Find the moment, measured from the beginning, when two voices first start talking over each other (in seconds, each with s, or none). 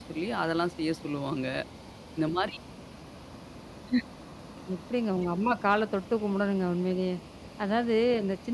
none